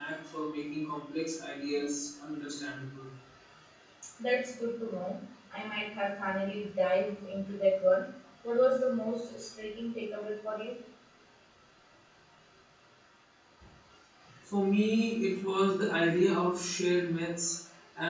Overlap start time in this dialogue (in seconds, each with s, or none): none